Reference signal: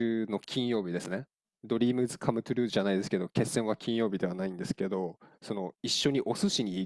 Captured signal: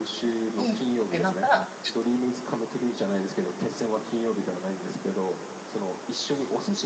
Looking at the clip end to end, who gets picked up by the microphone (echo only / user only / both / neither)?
both